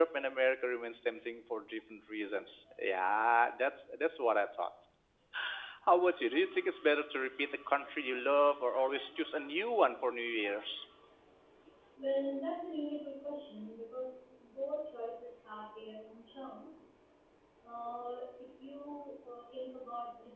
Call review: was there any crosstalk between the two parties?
No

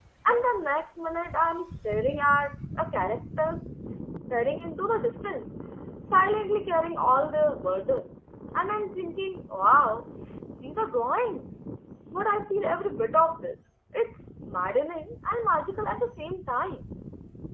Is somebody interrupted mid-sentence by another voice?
No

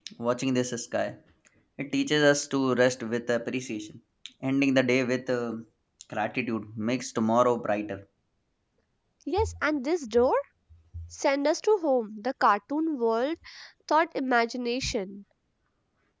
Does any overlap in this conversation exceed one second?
No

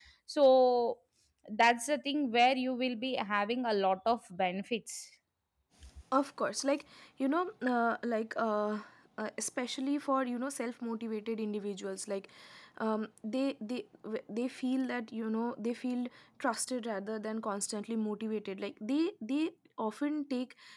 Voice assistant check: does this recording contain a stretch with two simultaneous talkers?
No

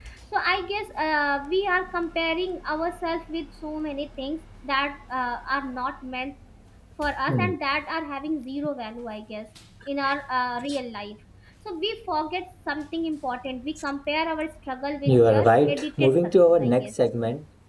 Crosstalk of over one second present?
Yes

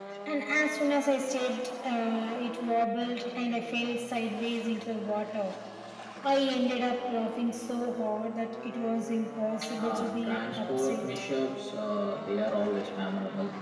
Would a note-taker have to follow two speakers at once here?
Yes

